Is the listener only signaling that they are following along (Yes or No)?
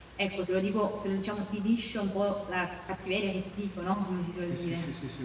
No